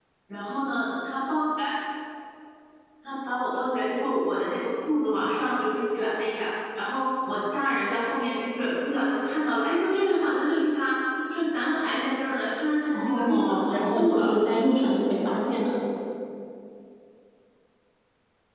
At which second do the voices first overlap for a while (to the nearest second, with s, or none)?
13 s